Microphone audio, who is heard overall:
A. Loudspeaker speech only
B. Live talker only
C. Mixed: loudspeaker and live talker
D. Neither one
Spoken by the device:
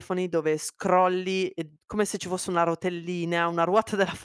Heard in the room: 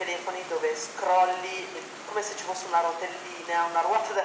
A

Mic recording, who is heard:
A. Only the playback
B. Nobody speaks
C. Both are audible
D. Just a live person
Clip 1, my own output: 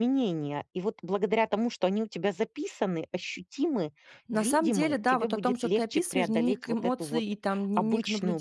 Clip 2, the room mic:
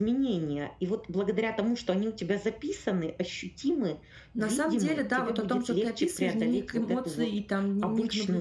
A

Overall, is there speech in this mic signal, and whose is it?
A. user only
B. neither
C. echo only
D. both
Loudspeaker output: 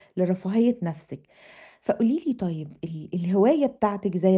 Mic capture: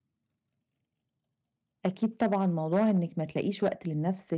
A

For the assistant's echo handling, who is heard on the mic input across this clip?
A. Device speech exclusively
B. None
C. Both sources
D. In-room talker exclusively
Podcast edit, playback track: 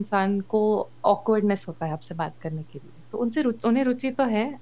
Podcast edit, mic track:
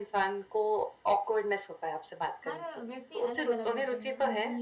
C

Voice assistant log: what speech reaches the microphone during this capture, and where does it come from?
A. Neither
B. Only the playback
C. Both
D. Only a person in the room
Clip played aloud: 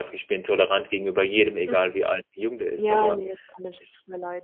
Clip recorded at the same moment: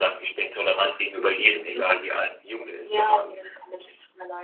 B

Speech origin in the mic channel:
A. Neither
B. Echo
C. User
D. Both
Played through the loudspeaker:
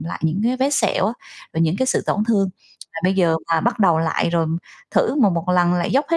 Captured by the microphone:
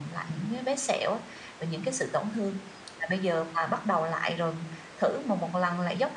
B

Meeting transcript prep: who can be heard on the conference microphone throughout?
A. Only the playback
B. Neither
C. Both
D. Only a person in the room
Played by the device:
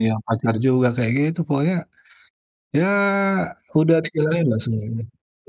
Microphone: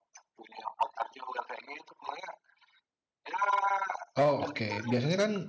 C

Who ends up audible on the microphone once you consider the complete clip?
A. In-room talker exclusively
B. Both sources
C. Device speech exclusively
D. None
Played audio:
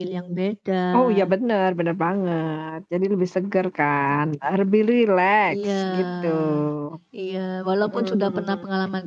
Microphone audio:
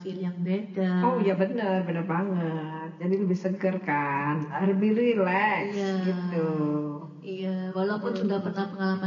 C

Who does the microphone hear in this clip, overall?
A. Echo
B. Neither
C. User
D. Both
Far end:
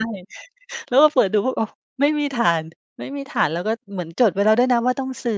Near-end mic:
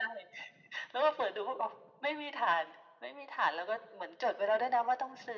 A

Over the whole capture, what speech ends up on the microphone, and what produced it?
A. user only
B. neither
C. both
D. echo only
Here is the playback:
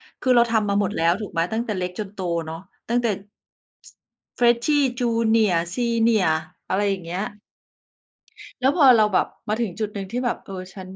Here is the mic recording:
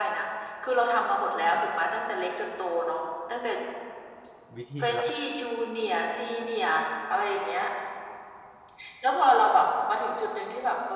C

